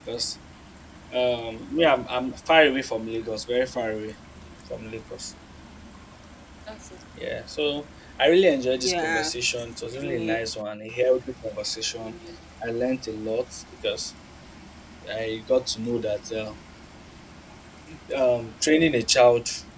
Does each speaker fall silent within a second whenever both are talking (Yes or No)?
Yes